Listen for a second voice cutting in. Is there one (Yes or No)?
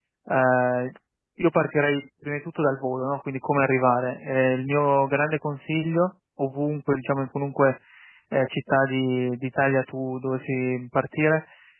No